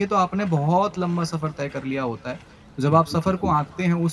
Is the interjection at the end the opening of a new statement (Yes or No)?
No